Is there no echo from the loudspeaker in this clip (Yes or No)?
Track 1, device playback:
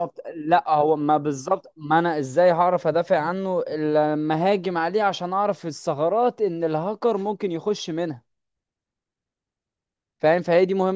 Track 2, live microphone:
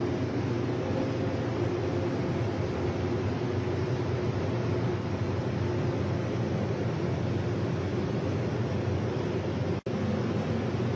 Yes